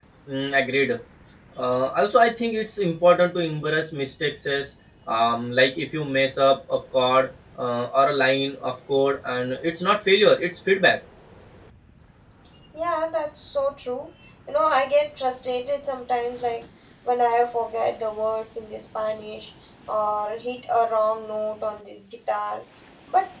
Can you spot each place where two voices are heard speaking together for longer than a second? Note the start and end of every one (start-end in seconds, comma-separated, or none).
none